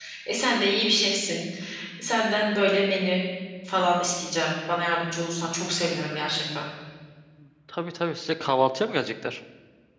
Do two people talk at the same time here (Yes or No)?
No